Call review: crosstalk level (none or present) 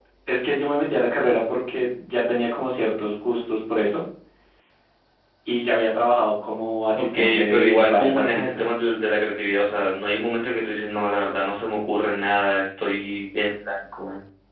present